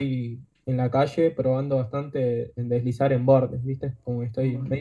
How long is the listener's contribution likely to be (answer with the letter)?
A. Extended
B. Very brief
B